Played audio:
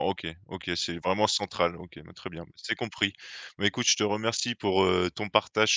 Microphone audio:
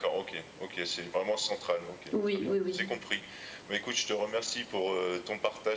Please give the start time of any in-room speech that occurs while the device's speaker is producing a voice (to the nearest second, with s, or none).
2 s